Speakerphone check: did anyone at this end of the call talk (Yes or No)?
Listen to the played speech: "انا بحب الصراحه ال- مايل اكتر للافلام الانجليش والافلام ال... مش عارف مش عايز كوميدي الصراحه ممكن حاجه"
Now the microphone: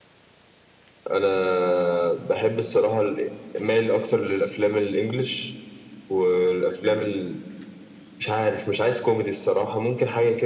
No